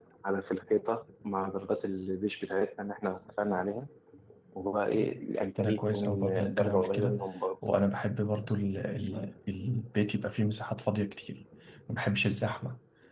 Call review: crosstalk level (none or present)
present